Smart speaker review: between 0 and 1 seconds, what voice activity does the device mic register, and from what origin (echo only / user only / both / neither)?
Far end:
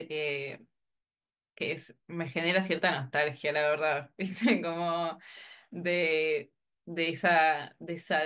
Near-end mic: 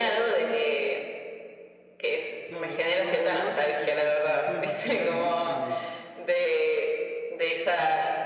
echo only